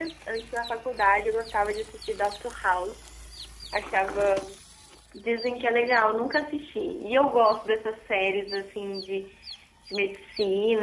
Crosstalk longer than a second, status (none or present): none